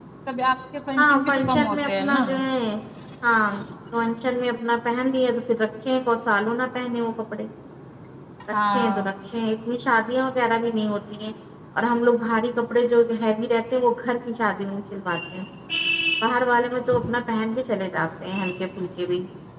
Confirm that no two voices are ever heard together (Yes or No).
No